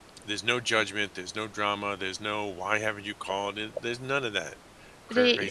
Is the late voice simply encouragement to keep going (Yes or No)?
No